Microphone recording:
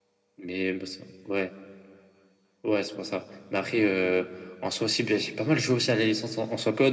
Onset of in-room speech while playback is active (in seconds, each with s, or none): none